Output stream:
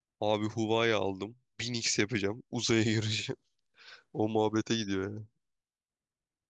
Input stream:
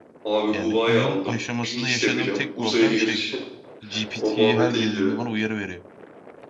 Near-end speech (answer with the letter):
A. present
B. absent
A